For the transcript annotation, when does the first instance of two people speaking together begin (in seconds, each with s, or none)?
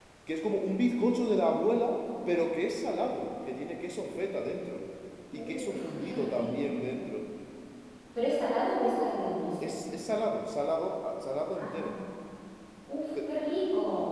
5.4 s